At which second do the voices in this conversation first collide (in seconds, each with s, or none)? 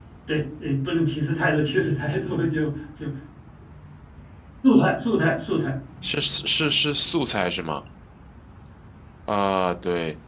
none